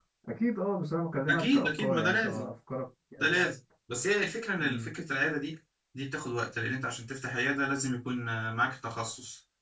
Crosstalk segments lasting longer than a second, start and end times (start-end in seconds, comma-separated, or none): 1.3-2.5